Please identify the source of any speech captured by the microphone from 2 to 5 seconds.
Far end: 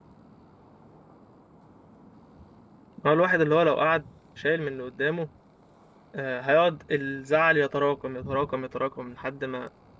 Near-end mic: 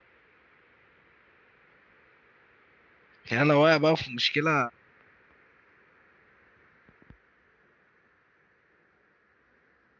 user only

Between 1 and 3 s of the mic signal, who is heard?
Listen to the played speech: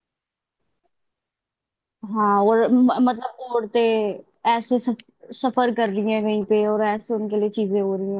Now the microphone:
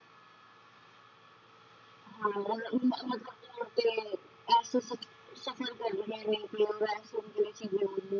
echo only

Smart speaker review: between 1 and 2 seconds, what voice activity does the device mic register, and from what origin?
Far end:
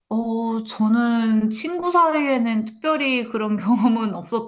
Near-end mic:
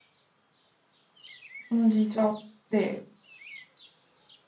user only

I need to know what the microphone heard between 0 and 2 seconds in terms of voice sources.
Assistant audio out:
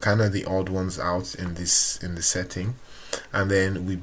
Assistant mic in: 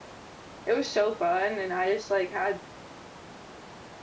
user only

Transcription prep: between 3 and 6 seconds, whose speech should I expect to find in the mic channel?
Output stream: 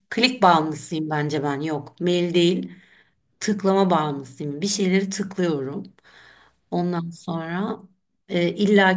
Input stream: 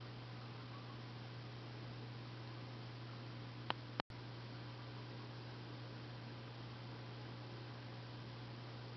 neither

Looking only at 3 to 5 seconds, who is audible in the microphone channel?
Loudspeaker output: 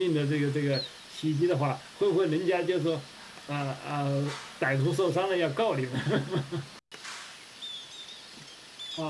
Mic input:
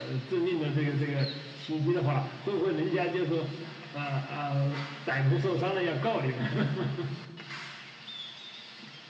echo only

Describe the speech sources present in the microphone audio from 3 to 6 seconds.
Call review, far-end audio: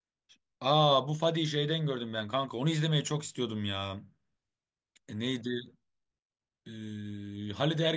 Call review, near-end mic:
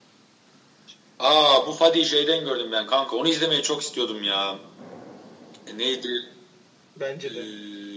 echo only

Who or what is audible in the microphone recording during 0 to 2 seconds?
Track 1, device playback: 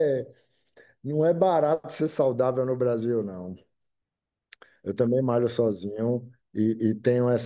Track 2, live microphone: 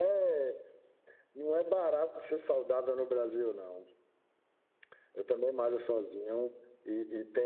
echo only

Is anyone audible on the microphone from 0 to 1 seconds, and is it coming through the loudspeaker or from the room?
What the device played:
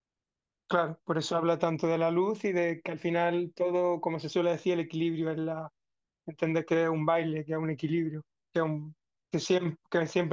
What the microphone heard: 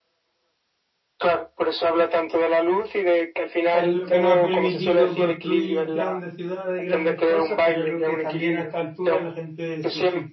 neither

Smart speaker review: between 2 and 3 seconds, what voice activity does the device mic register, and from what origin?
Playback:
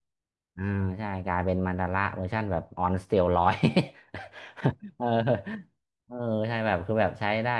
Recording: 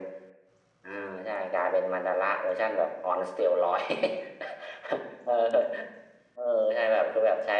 echo only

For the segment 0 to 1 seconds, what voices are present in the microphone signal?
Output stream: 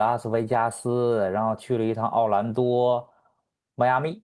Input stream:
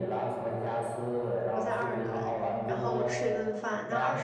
echo only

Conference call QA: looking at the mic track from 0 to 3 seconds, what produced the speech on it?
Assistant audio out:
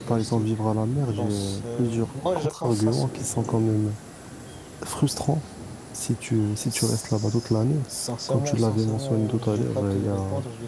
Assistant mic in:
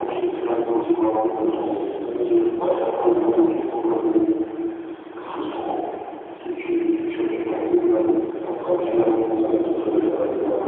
echo only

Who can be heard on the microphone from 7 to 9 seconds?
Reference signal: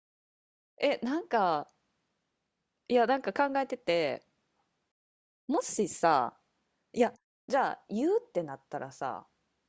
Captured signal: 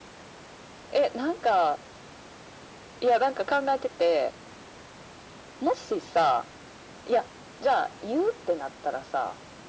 echo only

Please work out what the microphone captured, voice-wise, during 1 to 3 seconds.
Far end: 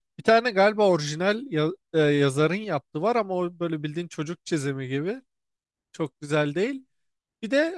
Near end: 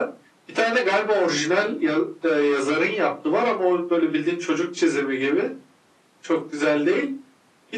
echo only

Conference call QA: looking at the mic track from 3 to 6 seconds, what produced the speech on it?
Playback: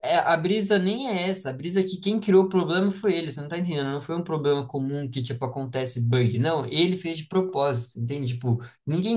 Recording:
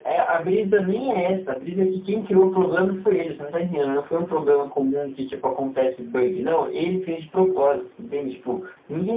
echo only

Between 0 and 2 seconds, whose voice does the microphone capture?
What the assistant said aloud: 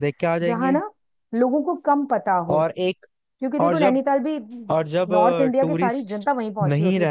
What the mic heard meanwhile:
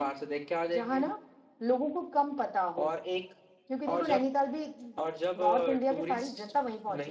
echo only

